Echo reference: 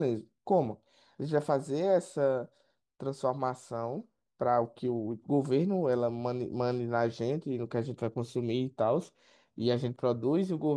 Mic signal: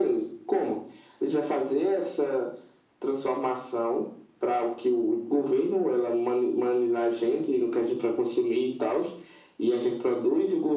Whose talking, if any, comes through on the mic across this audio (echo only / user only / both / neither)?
echo only